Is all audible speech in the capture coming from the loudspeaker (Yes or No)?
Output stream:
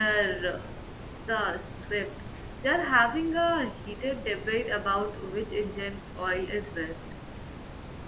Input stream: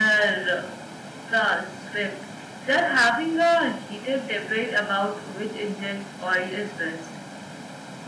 Yes